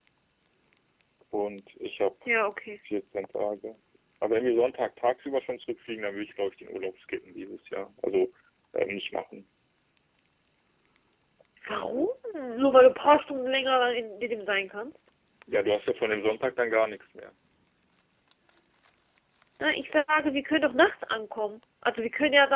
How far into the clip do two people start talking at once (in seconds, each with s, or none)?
none